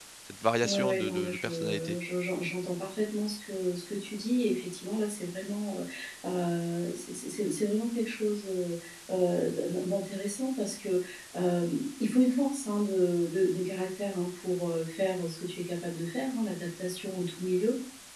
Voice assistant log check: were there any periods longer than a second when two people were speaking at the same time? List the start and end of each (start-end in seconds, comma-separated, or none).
0.6-2.0